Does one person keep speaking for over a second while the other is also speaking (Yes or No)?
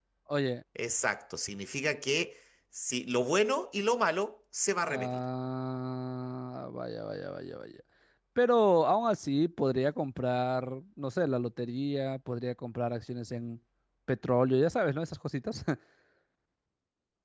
No